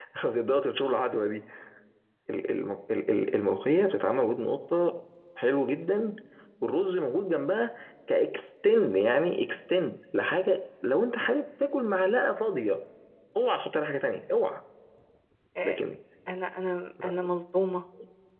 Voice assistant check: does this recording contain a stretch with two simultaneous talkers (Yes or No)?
No